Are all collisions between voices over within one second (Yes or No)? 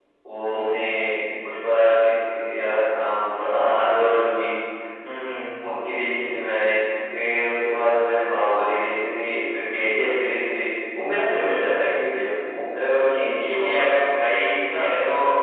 Yes